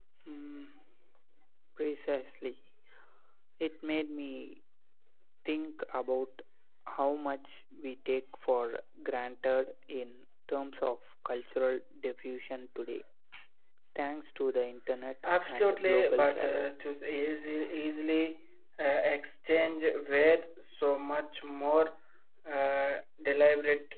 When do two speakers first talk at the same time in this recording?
15 s

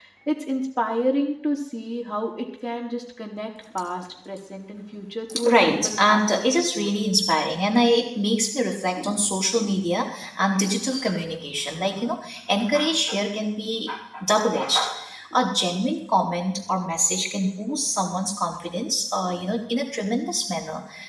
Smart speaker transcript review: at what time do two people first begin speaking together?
5 s

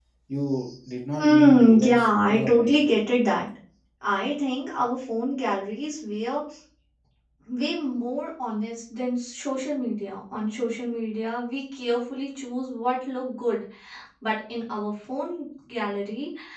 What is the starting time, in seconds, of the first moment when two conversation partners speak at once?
1 s

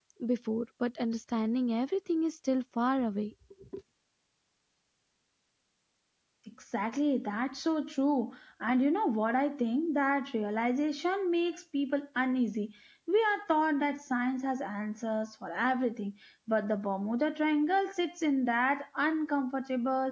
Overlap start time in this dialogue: none

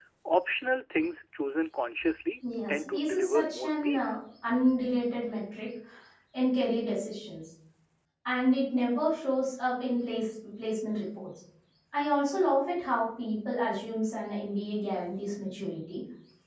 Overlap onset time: 3 s

